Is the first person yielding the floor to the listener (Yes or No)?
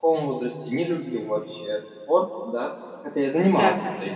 No